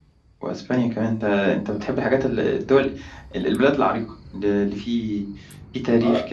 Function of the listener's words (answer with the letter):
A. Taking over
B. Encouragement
A